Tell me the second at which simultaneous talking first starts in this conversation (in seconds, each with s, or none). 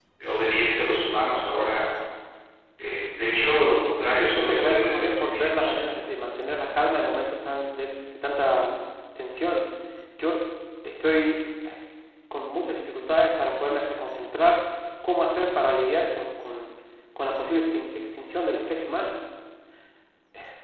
4.2 s